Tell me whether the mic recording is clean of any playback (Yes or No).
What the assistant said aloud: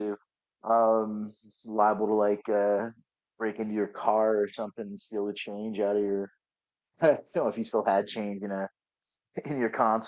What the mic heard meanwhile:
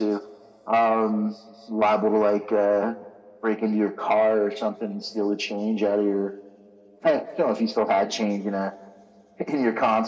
No